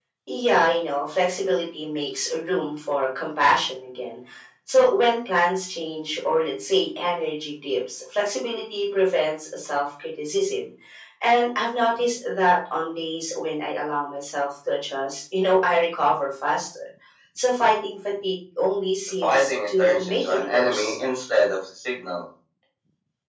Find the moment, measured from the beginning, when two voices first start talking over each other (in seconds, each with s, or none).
19.2 s